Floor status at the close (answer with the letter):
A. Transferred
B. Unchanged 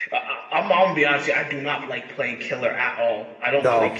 B